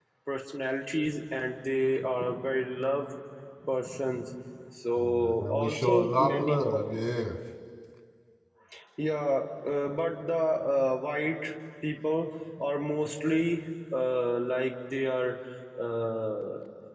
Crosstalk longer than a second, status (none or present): present